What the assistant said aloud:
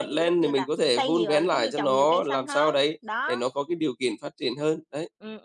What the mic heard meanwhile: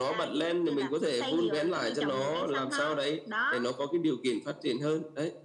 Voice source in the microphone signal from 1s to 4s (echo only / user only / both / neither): echo only